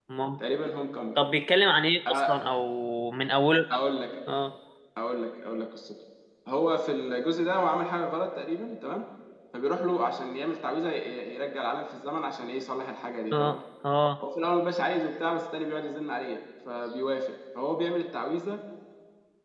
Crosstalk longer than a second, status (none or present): none